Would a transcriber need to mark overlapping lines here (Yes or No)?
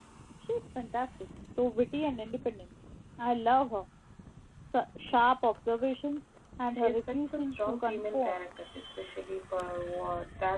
Yes